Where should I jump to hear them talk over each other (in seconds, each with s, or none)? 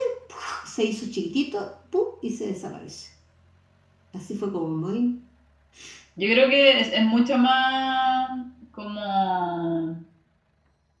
none